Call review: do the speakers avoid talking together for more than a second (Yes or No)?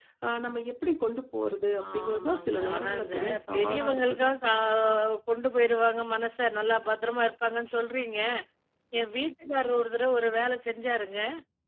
No